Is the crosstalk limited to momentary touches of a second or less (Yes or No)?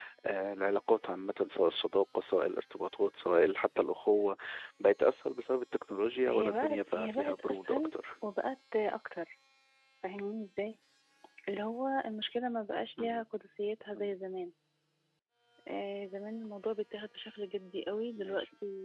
No